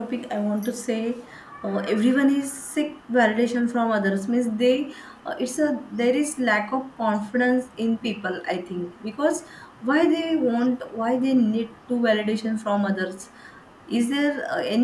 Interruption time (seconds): none

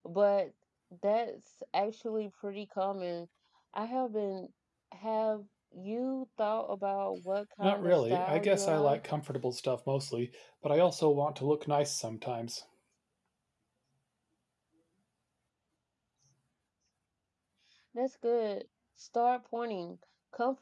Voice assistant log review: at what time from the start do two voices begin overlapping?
7.6 s

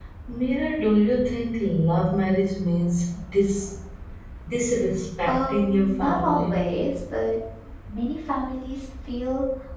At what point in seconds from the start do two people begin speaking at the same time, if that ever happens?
5.2 s

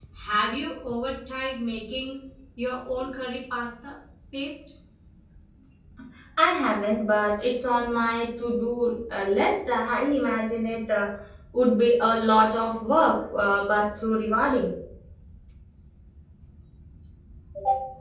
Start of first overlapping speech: none

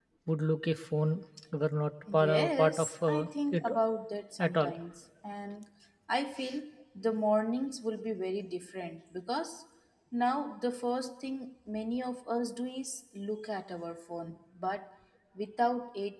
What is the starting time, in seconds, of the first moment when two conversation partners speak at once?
2.1 s

